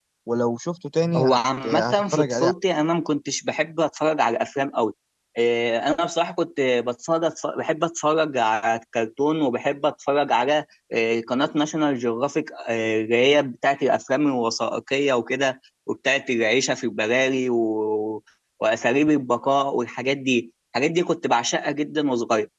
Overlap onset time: 1.2 s

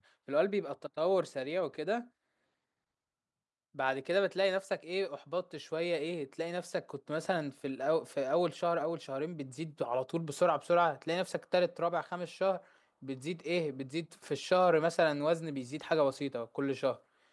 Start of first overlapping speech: none

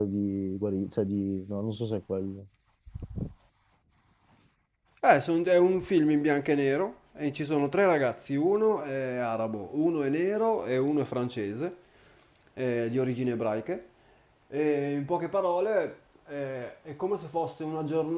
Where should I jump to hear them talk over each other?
none

